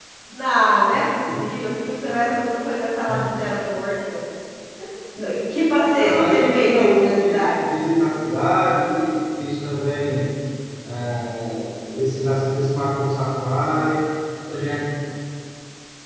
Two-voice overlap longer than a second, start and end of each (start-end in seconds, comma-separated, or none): 6.0-7.6